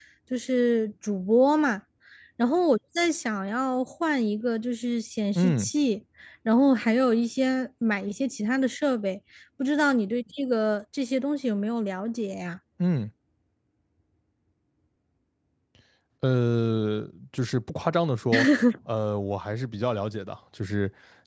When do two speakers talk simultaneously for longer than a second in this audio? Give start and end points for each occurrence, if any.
none

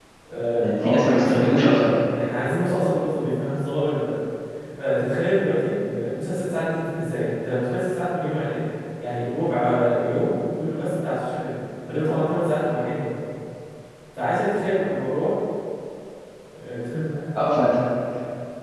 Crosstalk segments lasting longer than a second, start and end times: 0.6-1.9

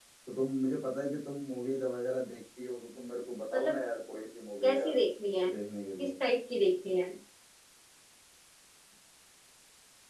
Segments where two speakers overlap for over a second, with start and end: none

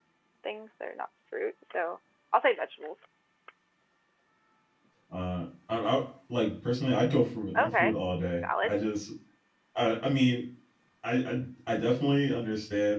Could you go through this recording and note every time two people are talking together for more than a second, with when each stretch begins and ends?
none

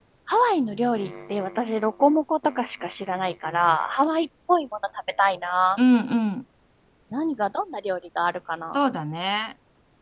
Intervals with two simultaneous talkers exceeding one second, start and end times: none

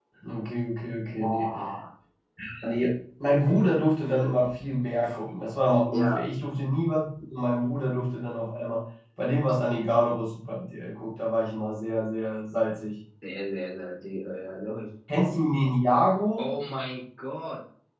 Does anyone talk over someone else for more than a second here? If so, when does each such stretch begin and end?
none

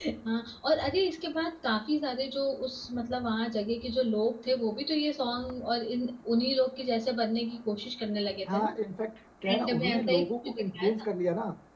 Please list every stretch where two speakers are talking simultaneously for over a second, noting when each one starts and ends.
9.5-10.9

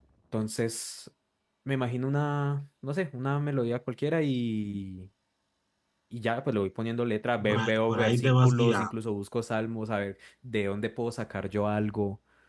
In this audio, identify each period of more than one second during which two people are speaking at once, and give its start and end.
7.4-8.9

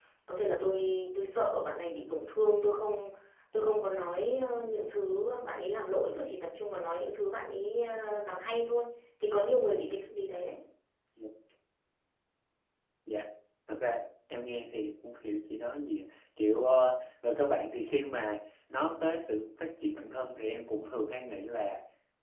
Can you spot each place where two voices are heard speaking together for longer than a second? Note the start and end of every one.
none

